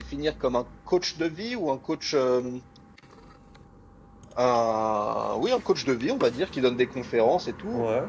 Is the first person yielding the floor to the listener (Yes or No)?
No